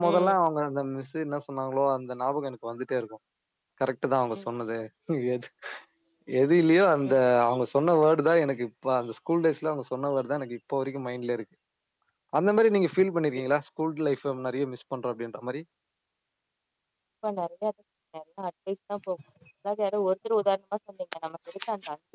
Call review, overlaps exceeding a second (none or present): none